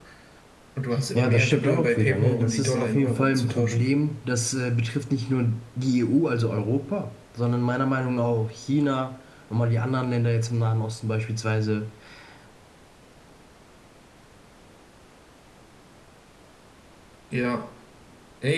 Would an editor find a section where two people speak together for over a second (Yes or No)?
Yes